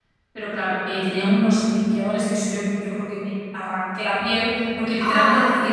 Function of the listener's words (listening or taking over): listening